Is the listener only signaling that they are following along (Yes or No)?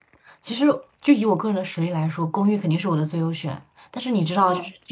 Yes